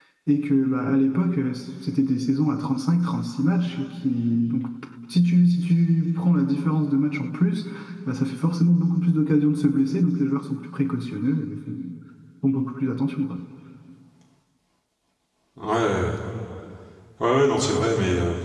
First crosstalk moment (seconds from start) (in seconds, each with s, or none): none